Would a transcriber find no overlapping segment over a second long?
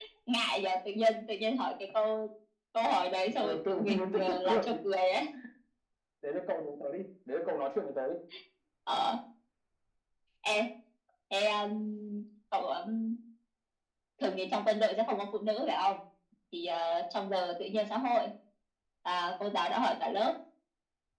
No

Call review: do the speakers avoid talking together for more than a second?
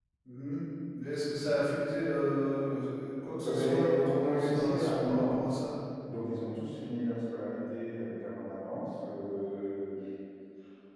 No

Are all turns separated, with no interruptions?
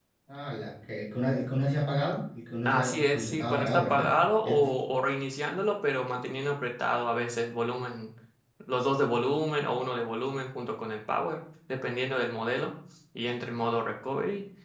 No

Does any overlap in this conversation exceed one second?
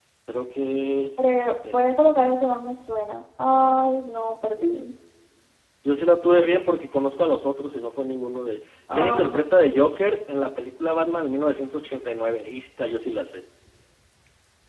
No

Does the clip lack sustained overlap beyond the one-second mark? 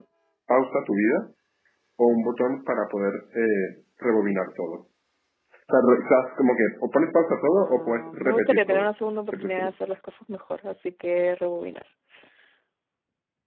No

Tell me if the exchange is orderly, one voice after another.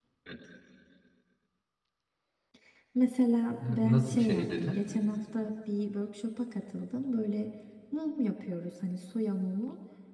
No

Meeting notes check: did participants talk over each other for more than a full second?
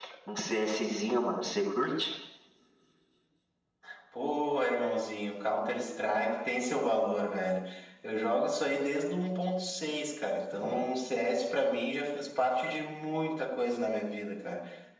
No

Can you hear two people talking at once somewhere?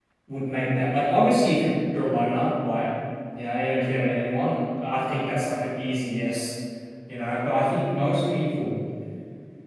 No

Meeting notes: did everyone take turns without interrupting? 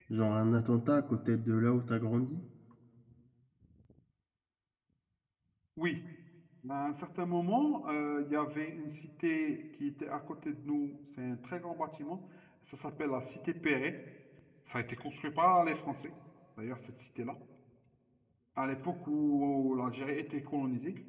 Yes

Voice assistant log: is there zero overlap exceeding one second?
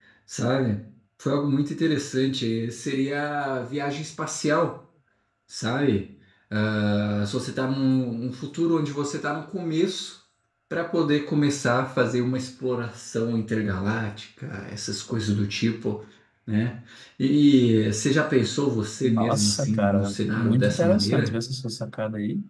No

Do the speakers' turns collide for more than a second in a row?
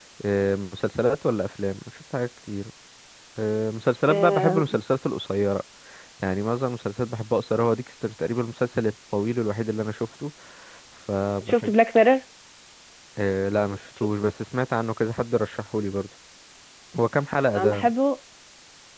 No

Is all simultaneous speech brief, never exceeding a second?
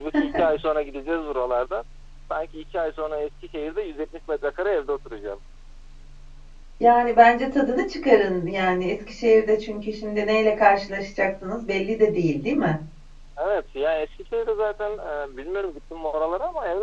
Yes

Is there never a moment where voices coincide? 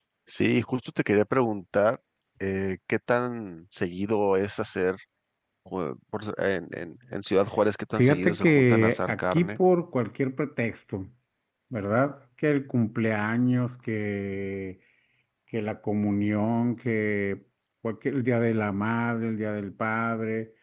No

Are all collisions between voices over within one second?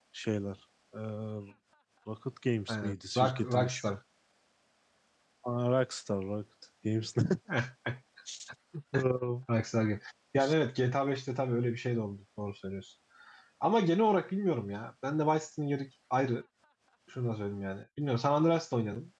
No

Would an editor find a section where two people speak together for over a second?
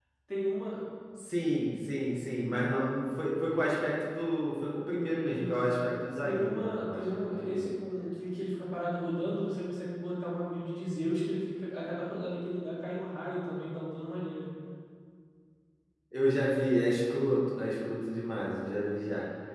Yes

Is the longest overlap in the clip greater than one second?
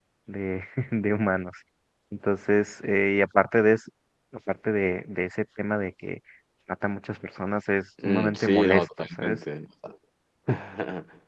Yes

